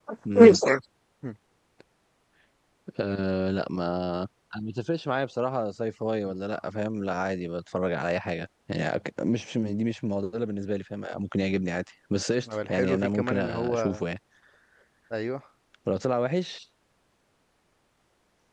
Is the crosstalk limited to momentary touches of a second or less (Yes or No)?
No